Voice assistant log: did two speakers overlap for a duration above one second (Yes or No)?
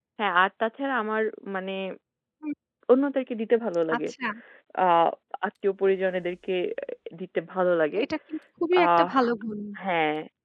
No